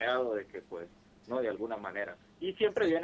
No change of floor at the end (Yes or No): Yes